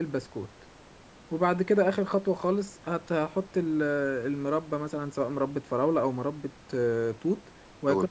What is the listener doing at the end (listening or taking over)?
listening